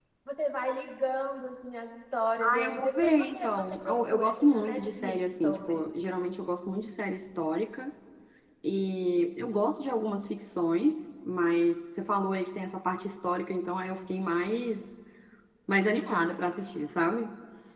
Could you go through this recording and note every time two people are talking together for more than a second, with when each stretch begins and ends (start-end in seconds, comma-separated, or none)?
2.5-5.8